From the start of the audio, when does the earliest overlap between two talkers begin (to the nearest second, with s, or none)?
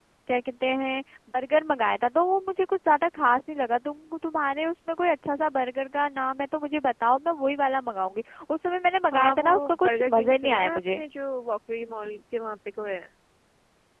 9 s